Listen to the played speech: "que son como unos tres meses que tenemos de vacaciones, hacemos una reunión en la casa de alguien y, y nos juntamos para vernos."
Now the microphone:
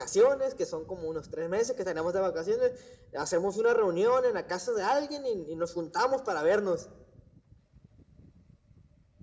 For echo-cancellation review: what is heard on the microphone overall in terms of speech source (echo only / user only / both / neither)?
echo only